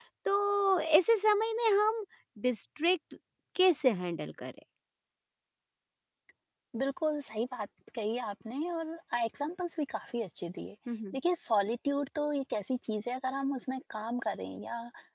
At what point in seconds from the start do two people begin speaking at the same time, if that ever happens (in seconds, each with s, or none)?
none